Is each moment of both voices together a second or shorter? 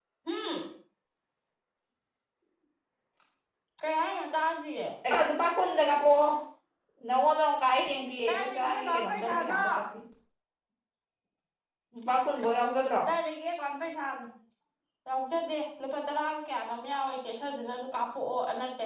No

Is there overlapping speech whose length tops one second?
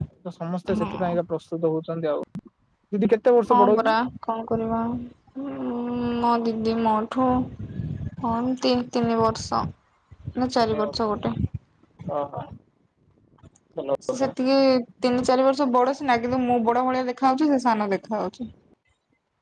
No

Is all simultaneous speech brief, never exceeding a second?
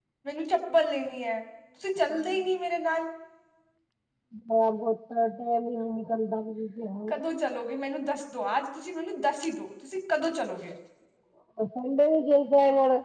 Yes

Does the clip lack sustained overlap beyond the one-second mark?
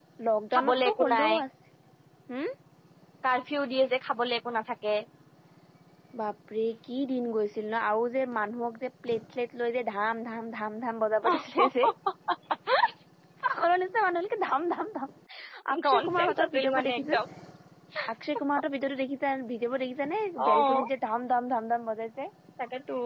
No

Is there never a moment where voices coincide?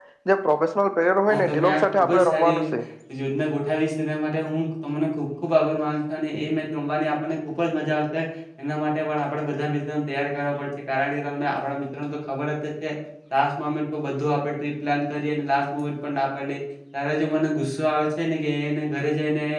No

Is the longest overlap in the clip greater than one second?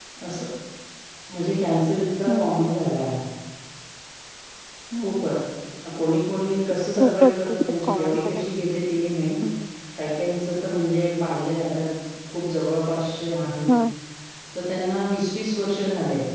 Yes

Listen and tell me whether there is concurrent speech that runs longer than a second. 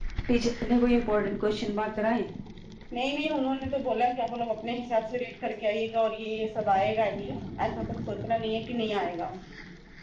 No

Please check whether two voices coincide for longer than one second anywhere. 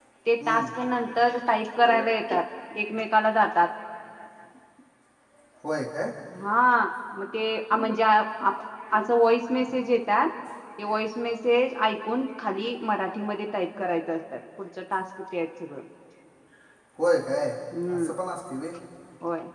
No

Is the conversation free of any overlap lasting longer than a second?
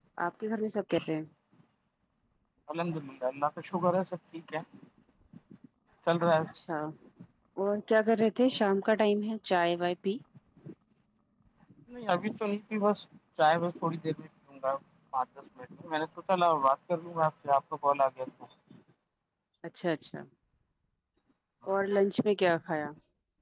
Yes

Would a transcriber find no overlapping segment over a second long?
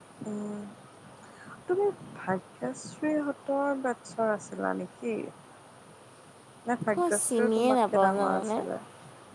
No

